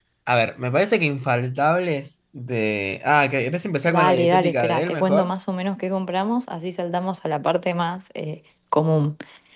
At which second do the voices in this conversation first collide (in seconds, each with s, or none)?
3.9 s